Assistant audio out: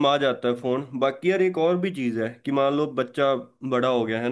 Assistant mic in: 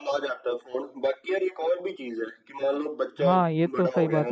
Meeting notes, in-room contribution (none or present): present